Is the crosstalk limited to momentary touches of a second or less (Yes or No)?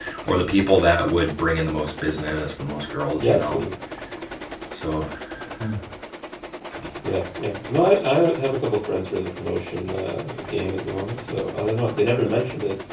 Yes